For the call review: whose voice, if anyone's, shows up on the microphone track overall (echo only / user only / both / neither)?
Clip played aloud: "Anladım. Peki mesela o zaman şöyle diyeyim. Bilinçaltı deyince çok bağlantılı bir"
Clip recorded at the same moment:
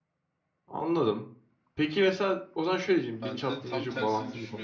both